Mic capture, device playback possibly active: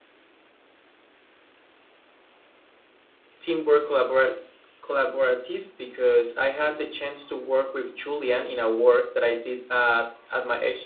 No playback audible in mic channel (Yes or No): Yes